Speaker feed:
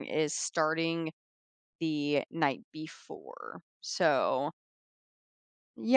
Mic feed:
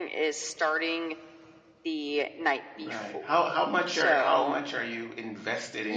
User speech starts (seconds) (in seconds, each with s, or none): 2.8 s